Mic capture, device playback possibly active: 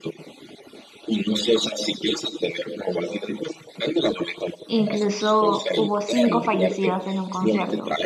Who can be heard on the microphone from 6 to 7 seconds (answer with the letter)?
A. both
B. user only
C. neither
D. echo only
A